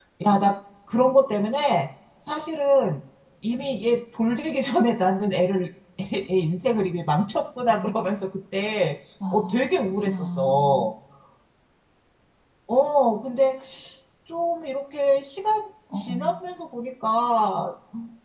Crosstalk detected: Yes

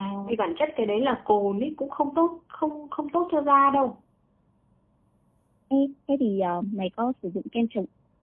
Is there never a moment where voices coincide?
Yes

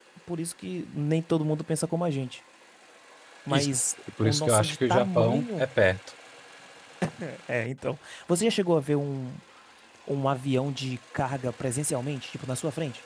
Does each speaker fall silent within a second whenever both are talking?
No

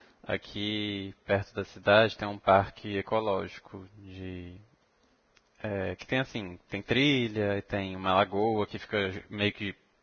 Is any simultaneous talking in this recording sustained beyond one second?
No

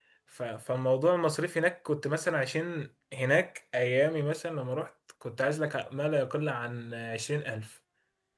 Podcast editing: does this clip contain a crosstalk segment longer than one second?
No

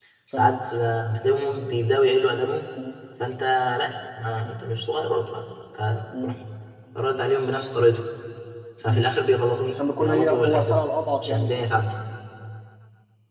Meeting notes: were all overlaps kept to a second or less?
No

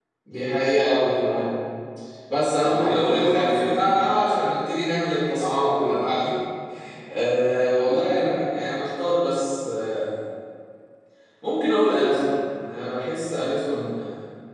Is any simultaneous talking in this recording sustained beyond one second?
Yes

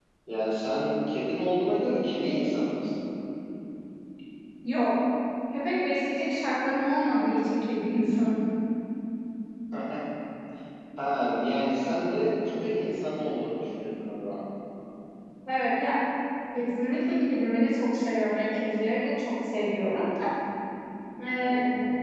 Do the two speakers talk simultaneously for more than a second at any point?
No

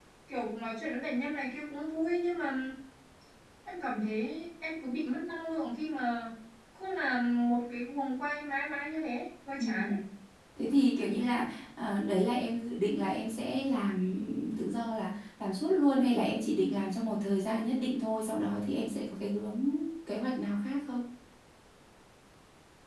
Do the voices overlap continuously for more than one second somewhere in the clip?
No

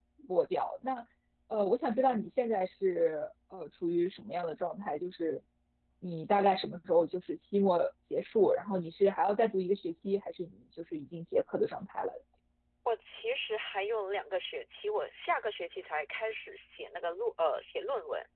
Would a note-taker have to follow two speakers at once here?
No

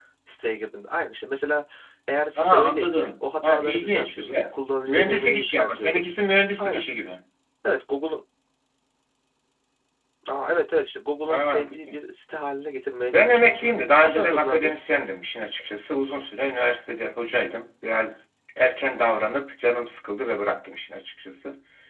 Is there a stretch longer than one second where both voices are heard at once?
Yes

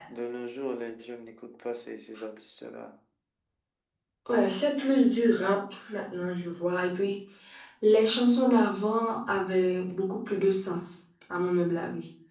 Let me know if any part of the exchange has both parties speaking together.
No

